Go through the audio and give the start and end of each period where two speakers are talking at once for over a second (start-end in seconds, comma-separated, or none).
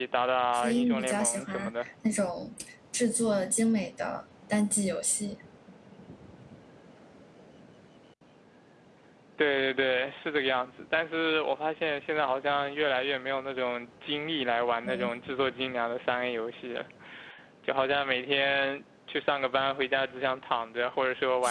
0.5-1.9